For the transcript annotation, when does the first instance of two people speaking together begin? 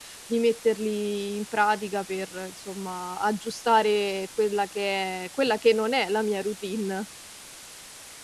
none

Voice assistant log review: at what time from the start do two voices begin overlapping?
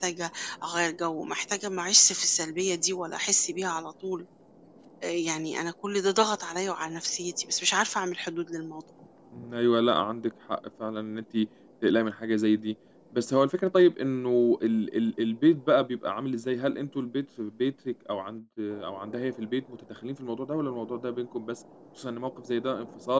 none

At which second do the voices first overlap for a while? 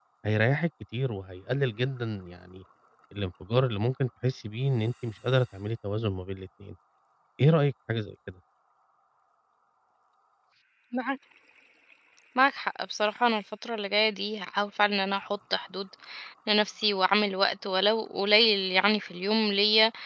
none

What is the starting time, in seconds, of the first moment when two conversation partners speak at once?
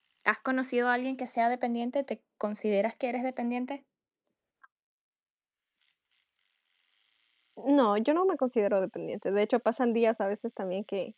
none

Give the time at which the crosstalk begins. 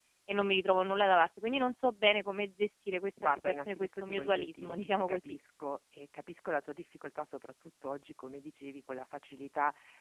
3.2 s

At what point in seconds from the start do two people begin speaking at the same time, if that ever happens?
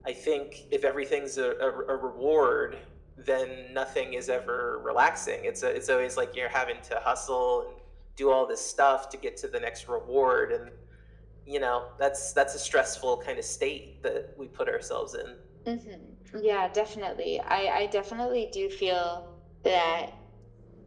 none

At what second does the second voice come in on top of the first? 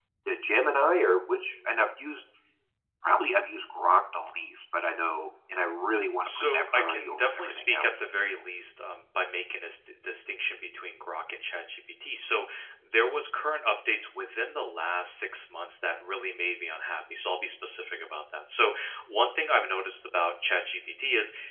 6.2 s

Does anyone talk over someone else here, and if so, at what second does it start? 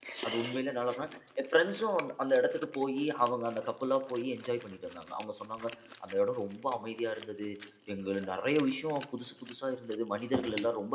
none

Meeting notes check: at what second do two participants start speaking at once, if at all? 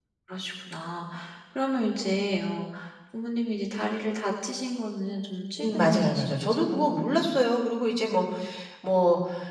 5.6 s

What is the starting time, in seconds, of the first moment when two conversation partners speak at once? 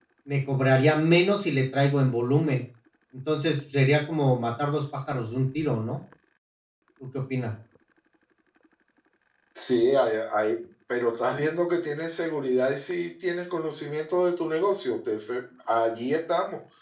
none

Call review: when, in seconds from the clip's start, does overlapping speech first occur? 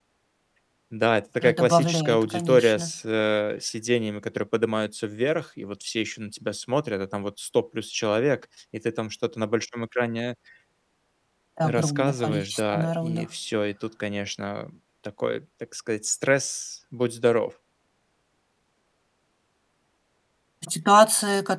1.4 s

